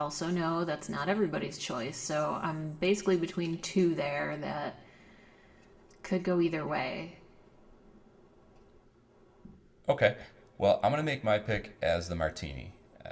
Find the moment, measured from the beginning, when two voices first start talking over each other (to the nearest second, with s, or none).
none